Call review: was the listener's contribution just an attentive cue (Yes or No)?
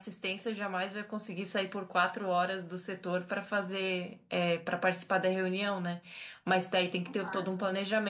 Yes